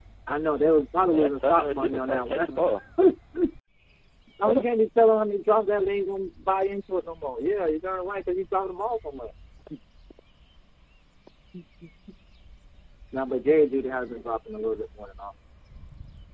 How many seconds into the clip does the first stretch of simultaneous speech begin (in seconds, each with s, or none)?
1.1 s